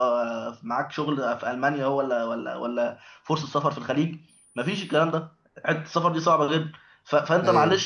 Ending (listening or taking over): listening